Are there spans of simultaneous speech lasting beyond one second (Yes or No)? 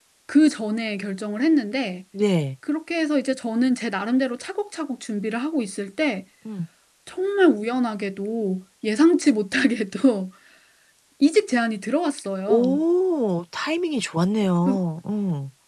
No